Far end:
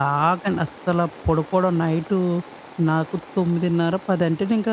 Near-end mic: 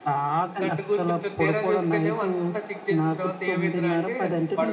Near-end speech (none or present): present